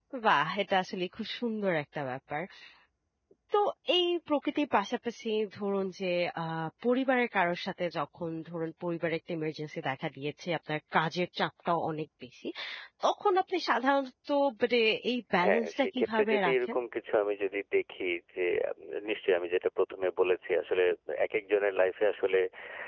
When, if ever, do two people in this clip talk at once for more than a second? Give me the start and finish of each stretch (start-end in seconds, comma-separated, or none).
15.4-16.8